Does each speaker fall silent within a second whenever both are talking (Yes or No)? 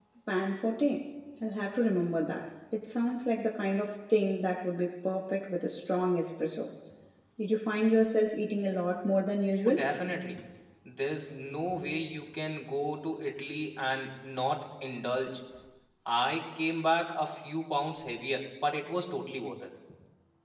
Yes